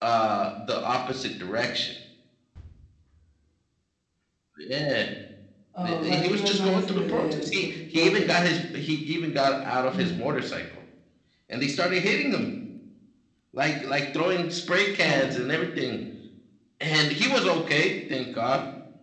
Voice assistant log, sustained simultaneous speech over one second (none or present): present